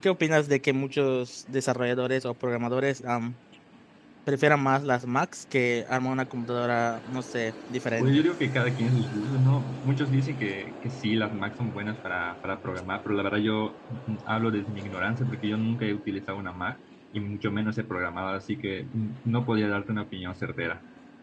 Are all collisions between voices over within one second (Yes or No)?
Yes